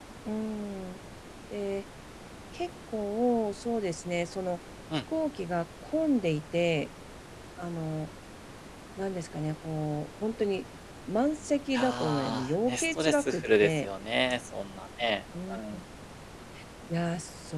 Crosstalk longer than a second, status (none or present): present